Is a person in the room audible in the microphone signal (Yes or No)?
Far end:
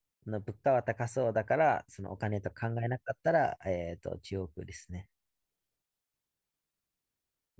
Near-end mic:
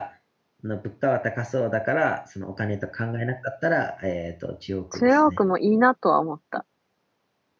Yes